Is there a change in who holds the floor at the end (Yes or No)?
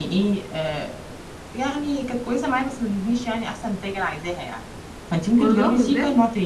No